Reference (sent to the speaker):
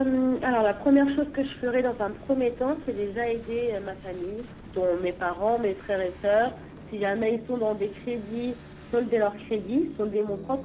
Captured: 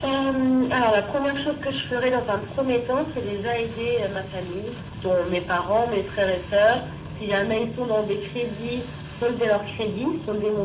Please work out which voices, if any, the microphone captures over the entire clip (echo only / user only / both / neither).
echo only